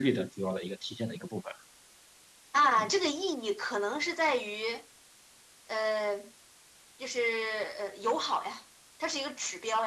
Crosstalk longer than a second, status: none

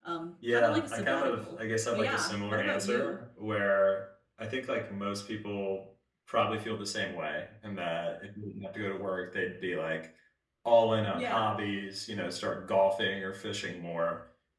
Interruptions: present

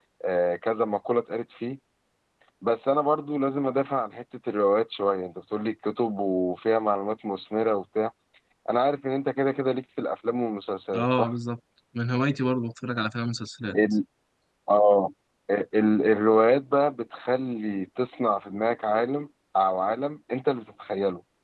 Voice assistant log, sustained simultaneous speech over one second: none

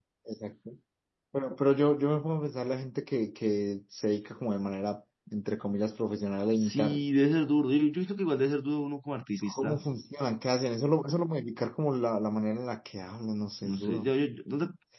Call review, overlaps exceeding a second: none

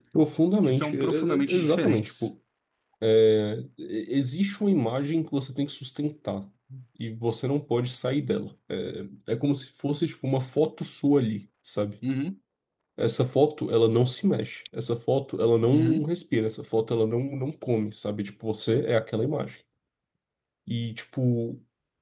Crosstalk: present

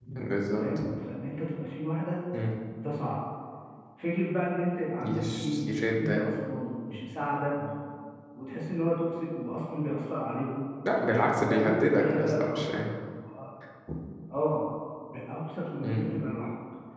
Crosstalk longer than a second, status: present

